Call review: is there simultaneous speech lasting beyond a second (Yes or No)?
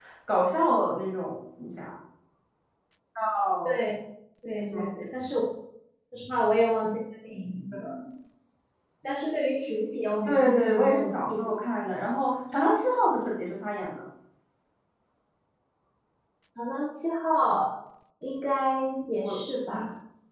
Yes